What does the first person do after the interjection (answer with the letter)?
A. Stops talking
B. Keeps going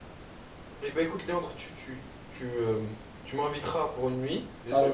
B